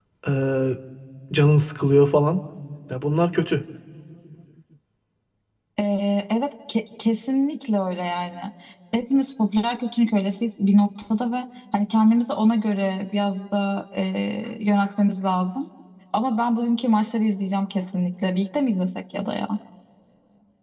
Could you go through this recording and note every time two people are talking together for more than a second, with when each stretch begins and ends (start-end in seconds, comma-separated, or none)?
none